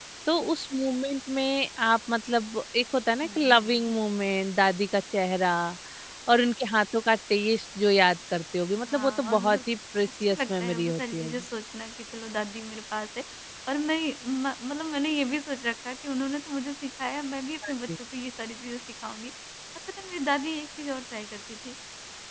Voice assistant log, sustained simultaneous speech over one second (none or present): present